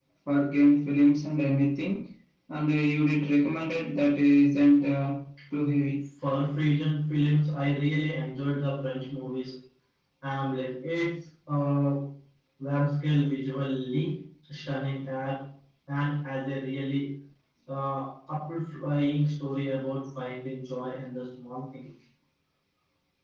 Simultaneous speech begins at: none

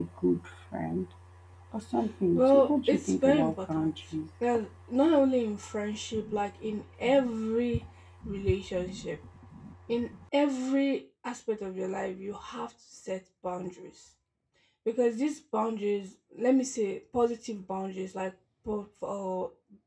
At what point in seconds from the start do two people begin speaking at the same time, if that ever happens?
2.4 s

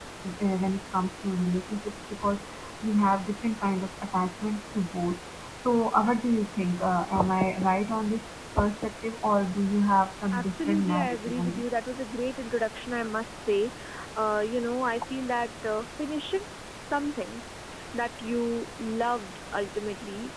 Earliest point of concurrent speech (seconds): 10.3 s

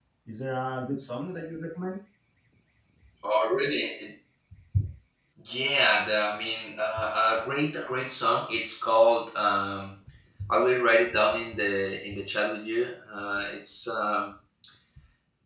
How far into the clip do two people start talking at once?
none

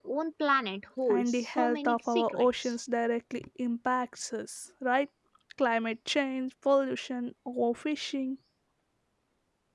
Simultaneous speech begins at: 1.1 s

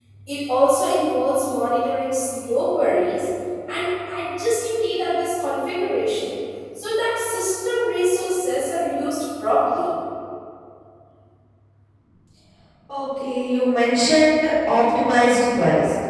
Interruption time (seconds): none

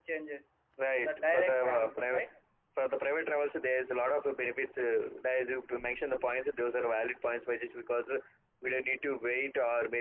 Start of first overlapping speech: 1.1 s

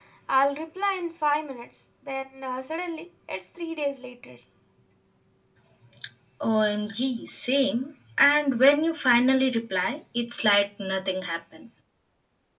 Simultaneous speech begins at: none

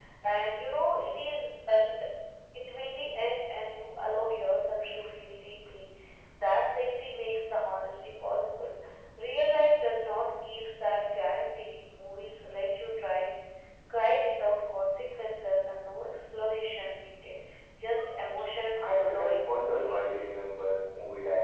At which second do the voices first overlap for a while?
18.9 s

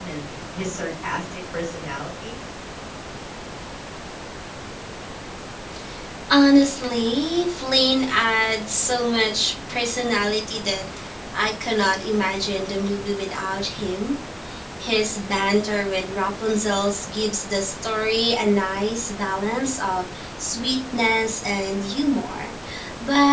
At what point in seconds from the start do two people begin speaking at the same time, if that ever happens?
none

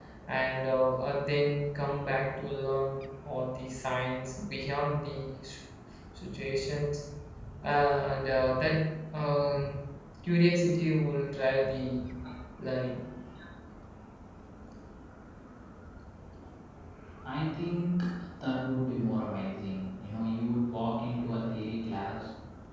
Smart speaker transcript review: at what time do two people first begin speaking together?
none

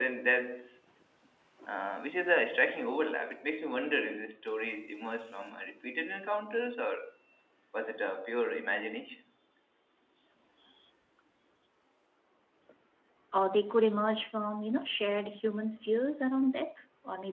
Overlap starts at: none

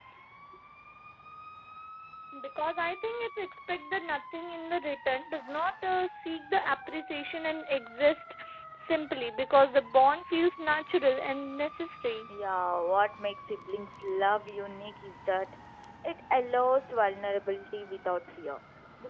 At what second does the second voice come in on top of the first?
none

